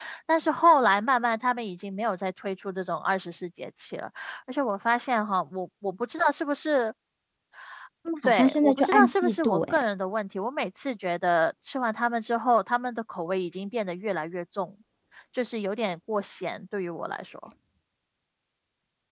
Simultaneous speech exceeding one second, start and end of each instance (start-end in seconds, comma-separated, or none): 8.2-9.8